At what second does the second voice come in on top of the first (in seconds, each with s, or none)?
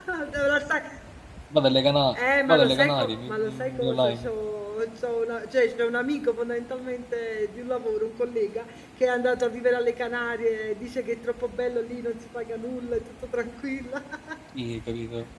2.5 s